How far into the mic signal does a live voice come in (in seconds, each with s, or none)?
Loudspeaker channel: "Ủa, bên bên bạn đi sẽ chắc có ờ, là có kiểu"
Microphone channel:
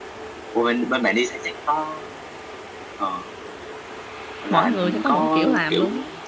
4.5 s